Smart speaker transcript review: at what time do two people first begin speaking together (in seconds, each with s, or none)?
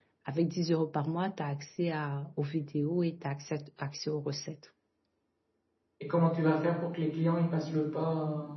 none